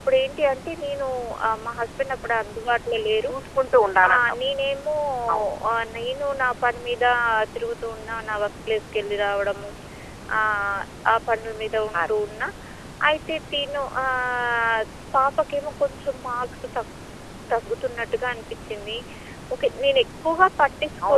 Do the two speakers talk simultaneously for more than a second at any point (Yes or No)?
No